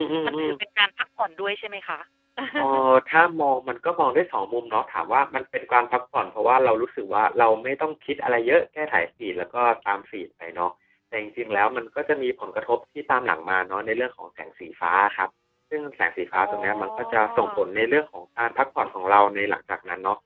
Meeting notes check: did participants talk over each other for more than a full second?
Yes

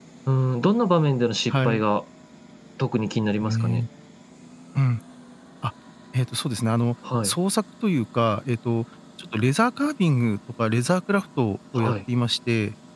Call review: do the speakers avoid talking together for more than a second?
Yes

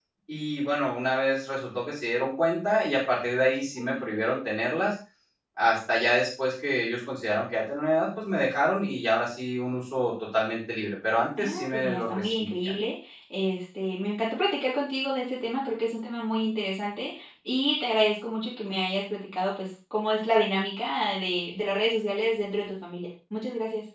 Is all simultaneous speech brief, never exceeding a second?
No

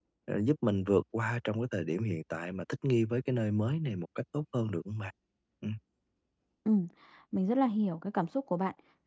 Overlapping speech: No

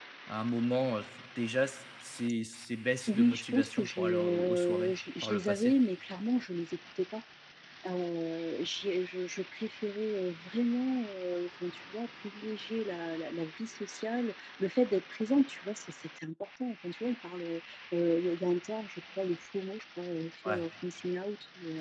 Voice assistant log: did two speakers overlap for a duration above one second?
Yes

